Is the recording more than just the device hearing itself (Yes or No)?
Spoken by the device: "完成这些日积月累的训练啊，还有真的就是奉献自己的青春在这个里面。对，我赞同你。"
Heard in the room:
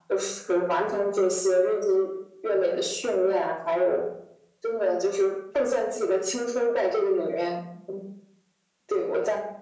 No